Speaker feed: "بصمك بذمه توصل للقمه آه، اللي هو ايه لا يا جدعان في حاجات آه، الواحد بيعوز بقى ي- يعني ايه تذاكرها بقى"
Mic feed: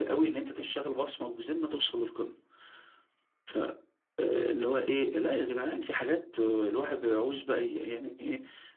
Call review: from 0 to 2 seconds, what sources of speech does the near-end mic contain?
echo only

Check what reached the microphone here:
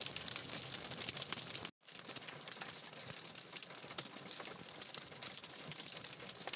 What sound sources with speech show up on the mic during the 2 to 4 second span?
neither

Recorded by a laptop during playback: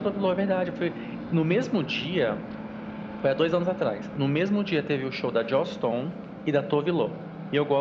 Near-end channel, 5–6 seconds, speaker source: echo only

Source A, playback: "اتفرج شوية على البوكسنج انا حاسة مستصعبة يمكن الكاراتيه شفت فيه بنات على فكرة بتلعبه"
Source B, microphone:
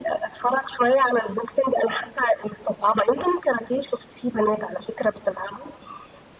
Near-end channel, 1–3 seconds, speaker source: echo only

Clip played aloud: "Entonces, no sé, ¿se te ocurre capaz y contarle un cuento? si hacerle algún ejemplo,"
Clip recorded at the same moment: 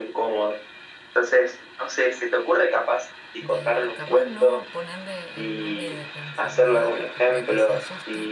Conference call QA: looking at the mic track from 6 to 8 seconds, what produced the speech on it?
both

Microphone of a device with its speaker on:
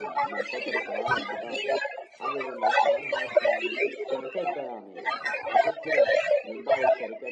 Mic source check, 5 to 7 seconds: both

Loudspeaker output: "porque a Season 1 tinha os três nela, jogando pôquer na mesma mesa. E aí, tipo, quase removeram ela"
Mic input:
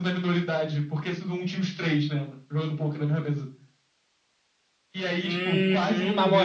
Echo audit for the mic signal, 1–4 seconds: echo only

